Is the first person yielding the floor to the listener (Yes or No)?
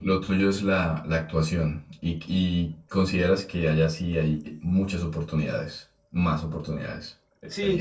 Yes